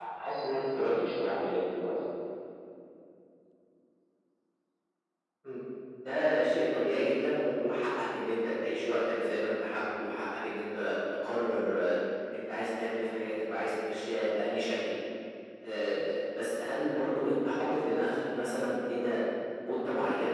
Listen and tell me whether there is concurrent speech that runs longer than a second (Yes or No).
No